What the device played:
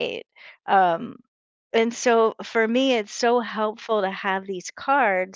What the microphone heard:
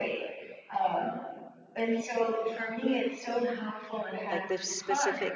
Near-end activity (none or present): present